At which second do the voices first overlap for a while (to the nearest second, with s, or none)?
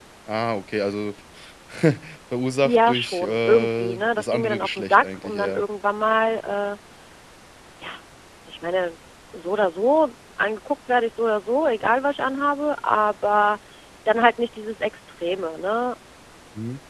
3 s